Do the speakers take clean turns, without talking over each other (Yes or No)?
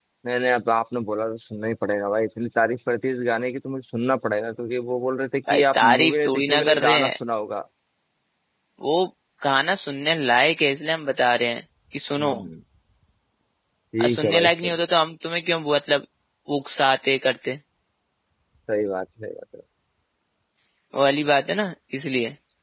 No